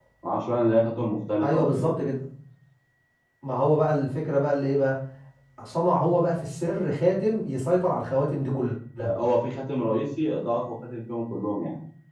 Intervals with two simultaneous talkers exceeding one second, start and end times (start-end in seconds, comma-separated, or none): none